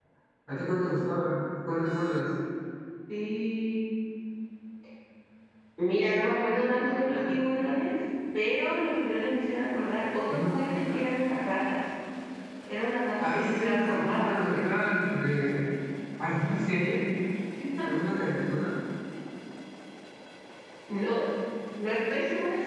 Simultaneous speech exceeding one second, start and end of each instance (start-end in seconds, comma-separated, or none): 13.2-14.4